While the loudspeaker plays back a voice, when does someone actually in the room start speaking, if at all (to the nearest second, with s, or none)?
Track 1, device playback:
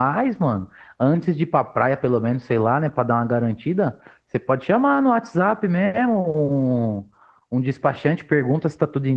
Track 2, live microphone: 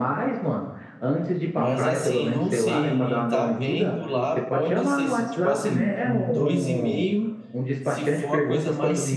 2 s